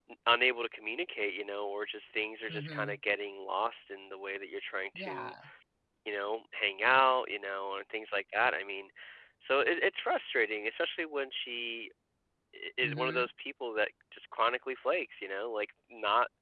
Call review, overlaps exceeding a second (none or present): none